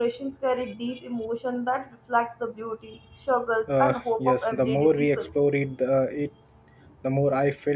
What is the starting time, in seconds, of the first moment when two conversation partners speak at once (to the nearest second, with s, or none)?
4 s